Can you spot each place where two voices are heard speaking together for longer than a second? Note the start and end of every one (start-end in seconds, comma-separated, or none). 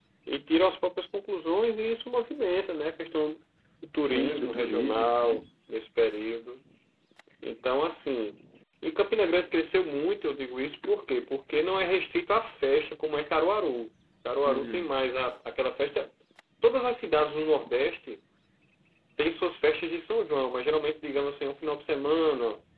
4.1-5.4